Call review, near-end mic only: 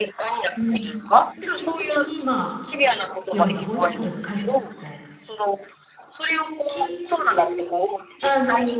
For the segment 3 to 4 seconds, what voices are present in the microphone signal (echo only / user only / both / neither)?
both